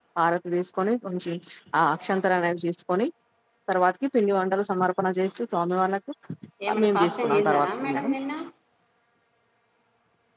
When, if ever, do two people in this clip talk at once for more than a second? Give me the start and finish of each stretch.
6.8-8.1

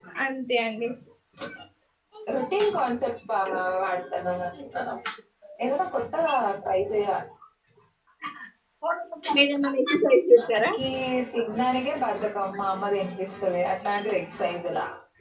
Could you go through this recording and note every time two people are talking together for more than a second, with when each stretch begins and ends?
none

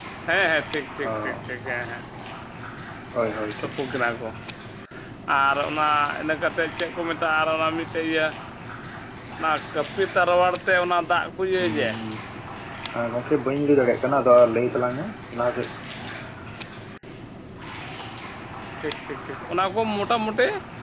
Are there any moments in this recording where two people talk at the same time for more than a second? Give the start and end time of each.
none

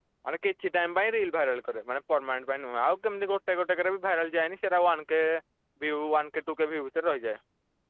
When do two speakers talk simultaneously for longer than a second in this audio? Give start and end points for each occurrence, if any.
none

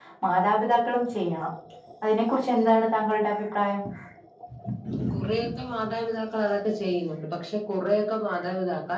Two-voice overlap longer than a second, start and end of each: none

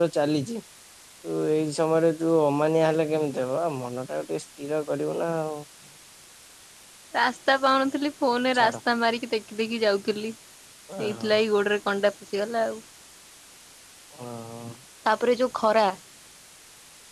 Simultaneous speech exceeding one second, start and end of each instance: none

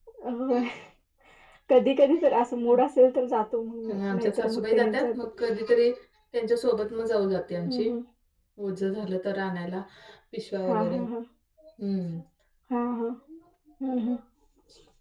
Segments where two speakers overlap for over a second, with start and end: 3.9-5.2

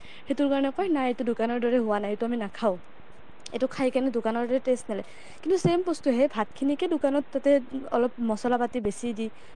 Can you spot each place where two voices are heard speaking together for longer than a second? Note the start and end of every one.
none

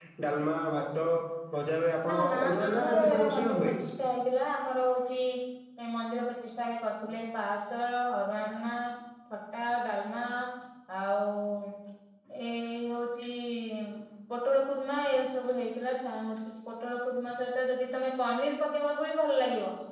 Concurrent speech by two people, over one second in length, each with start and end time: 2.1-3.7

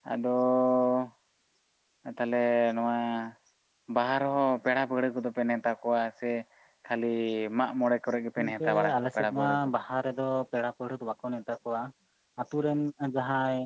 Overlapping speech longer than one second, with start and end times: 8.4-9.8

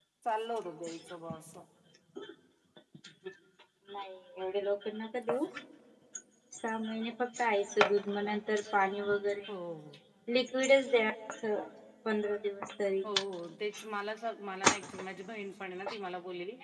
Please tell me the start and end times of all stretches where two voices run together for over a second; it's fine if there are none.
none

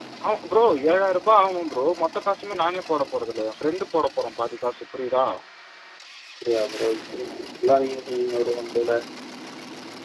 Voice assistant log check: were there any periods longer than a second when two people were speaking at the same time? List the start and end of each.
none

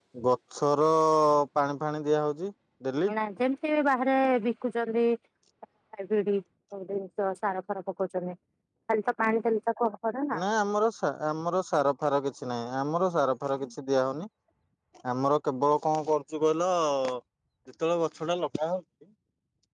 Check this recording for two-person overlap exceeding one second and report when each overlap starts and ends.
none

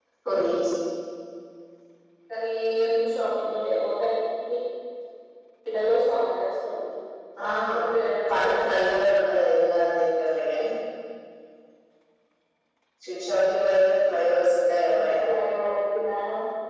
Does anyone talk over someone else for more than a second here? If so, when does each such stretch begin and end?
none

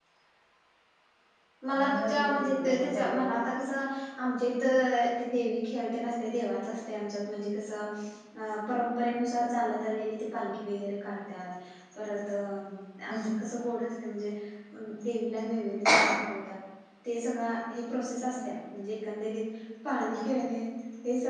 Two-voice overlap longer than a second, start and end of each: 1.8-3.3

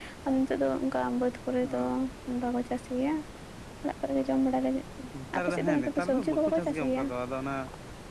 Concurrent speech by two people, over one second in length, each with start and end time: 5.4-7.0

